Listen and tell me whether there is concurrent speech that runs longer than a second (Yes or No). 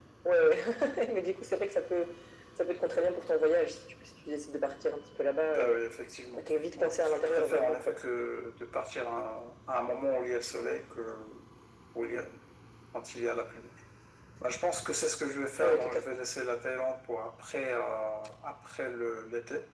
Yes